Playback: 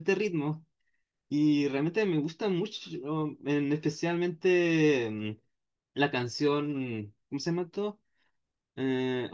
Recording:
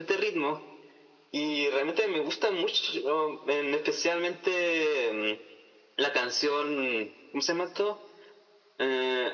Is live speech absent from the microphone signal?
Yes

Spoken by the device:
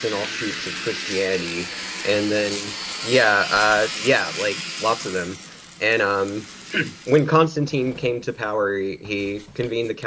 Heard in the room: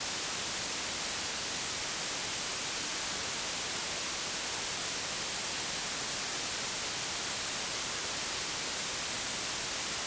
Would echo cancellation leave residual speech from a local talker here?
No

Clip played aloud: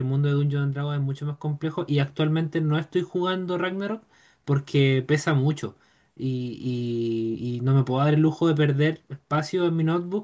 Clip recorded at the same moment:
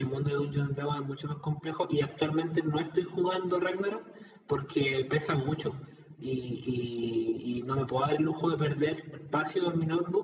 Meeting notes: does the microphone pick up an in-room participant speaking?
No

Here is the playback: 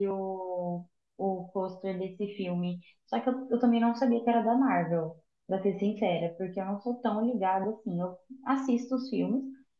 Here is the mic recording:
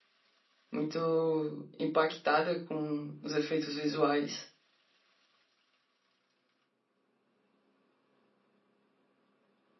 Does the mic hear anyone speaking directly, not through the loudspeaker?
Yes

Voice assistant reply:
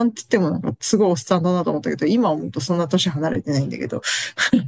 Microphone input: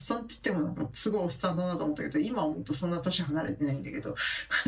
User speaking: No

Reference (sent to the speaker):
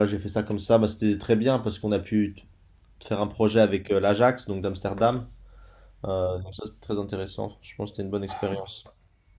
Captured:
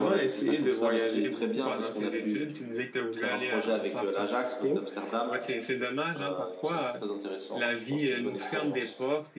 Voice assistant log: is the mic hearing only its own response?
No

